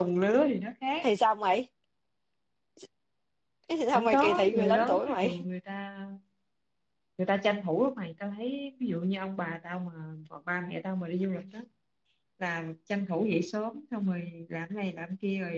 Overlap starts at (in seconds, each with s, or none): 3.9 s